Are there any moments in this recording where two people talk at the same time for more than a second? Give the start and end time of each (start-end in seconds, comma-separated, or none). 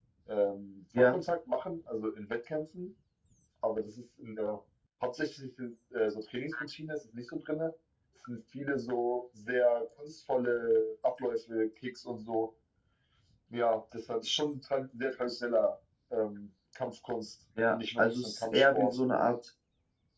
17.7-19.0